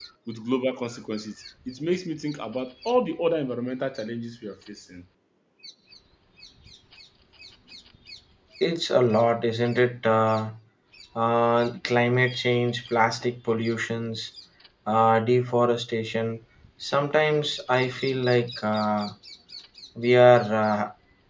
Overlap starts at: none

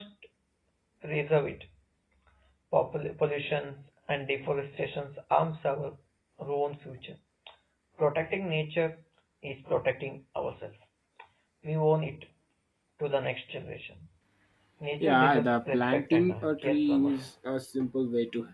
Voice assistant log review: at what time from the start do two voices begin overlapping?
15.0 s

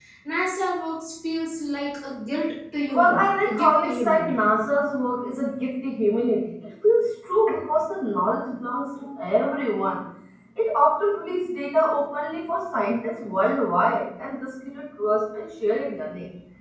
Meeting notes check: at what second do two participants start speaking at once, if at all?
2.9 s

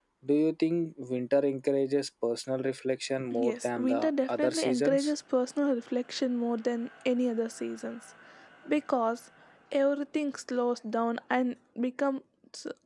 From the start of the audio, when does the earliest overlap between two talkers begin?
3.2 s

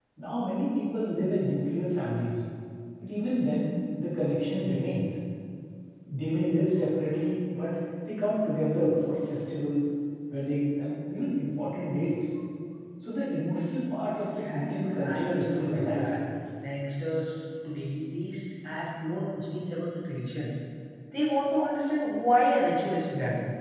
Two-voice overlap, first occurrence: 14.3 s

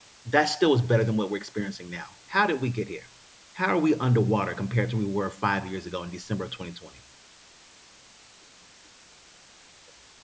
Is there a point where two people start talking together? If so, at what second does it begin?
none

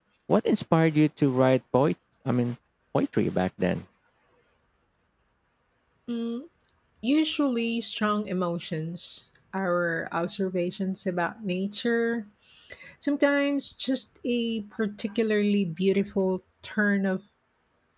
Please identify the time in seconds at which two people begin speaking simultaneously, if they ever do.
none

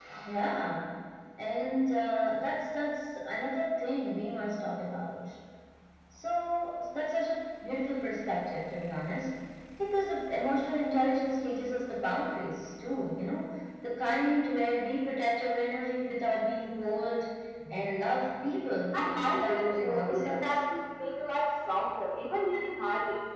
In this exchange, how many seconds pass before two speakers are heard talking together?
18.9 s

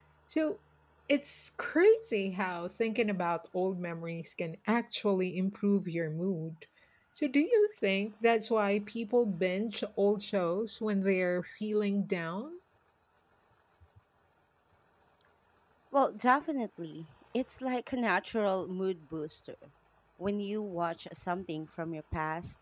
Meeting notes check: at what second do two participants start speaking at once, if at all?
none

